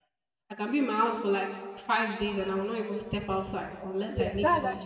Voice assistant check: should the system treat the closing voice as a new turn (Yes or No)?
Yes